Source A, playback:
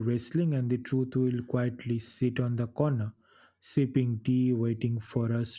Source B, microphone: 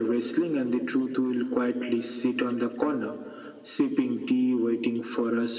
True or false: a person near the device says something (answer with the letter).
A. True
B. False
B